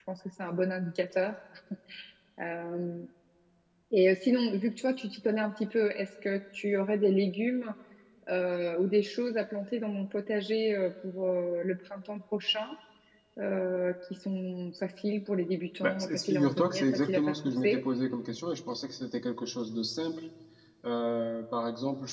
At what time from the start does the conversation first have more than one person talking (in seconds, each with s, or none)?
15.8 s